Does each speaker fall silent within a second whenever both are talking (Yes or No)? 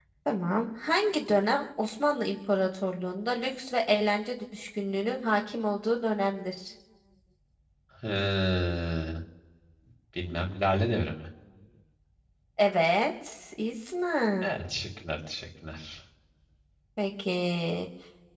Yes